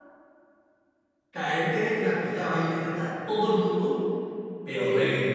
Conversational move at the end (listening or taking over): listening